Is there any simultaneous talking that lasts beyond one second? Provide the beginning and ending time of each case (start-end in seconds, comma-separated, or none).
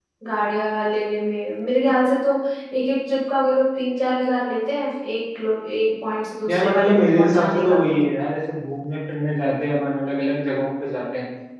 6.5-7.8